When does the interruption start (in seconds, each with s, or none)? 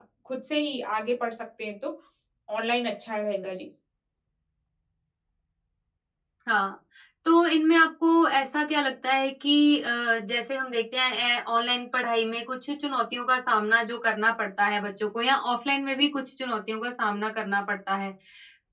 none